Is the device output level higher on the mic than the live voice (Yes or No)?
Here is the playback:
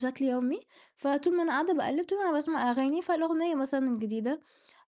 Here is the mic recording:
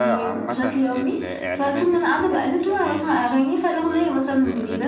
Yes